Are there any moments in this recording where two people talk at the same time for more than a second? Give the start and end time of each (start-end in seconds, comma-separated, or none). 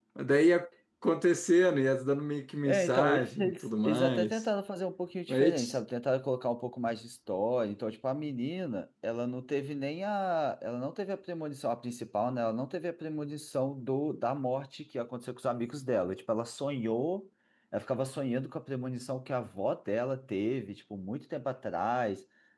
2.7-4.4